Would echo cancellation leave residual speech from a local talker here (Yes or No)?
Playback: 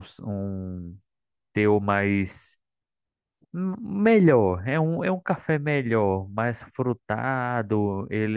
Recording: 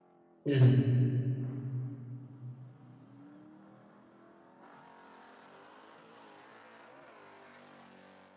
Yes